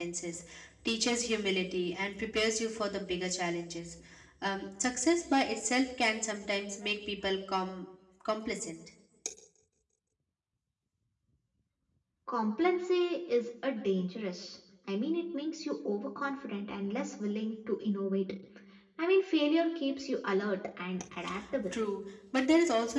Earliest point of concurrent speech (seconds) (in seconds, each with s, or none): none